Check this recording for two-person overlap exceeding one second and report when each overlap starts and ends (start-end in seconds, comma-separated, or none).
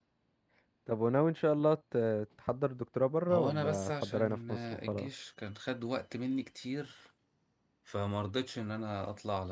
3.3-5.1